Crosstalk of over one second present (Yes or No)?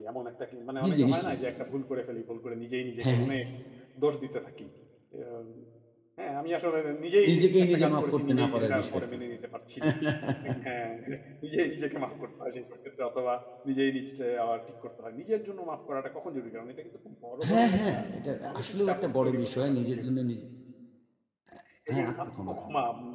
Yes